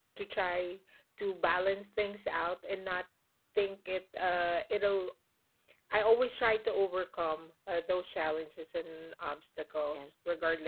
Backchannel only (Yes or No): Yes